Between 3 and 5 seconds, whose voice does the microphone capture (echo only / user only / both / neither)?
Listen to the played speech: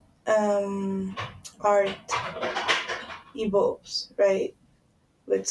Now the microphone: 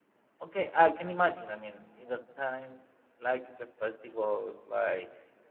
user only